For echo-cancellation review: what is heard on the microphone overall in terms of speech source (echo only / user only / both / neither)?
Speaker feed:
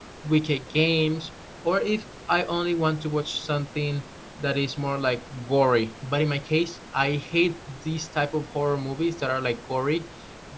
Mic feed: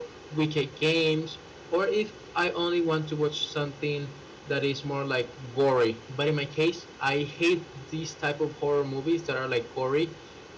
echo only